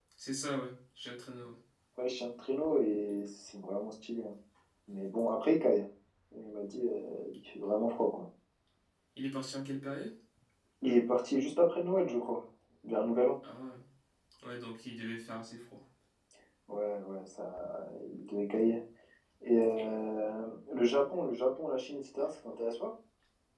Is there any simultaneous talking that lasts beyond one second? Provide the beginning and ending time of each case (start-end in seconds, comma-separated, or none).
none